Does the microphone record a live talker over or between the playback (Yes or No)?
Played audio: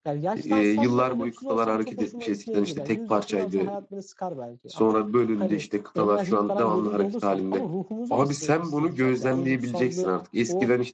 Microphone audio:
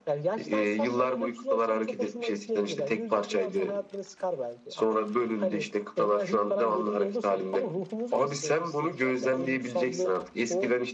No